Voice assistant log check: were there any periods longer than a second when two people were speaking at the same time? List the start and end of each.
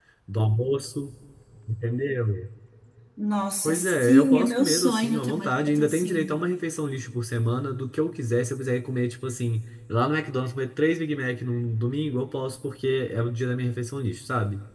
3.6-6.4

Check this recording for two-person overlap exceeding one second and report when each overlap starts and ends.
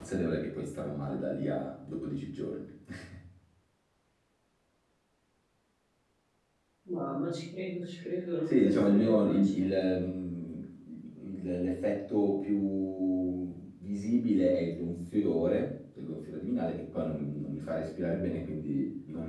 8.5-9.7

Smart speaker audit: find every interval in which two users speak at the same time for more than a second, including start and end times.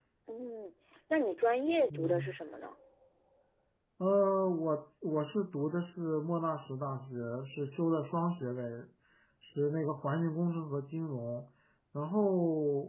none

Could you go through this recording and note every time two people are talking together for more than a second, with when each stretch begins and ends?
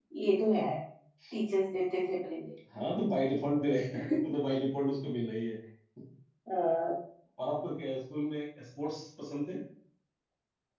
none

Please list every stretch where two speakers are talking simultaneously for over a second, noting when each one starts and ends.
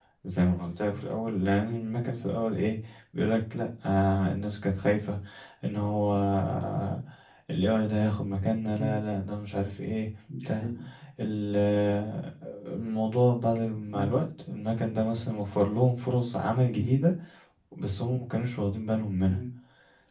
none

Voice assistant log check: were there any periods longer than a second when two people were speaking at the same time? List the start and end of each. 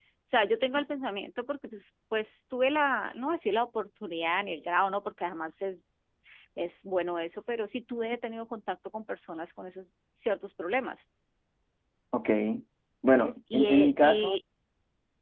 13.2-14.4

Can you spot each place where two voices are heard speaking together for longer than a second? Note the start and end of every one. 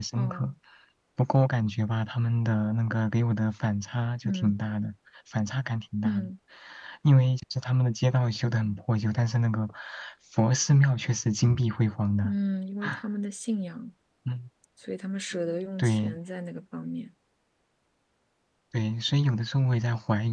none

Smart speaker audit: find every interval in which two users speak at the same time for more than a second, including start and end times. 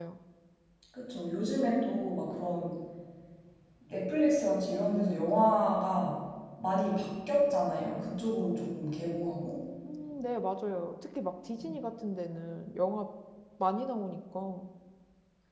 none

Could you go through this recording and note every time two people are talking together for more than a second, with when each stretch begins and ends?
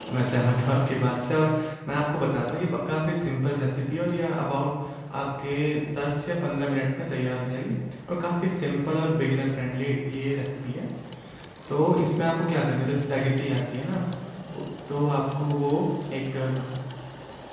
none

